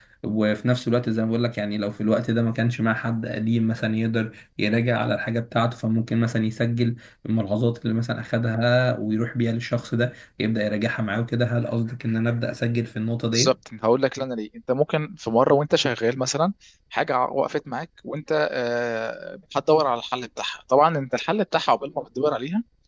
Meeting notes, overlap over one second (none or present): none